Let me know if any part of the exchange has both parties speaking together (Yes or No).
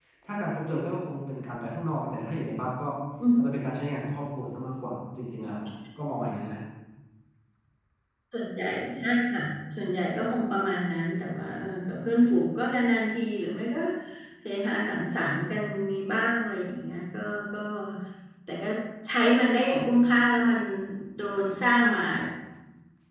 No